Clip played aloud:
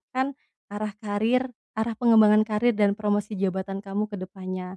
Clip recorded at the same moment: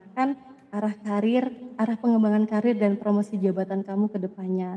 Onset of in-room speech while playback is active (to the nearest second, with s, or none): none